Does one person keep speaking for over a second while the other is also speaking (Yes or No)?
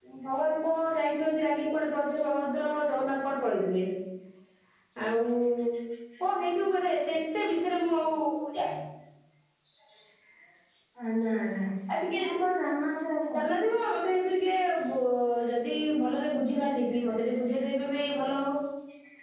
No